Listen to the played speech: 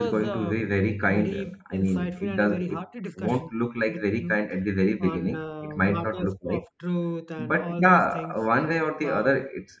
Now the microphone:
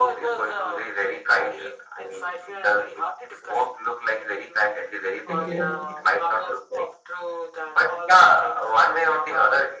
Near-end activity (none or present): present